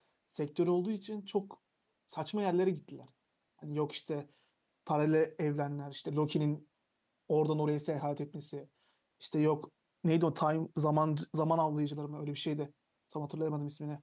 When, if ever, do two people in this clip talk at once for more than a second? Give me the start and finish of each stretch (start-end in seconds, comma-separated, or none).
none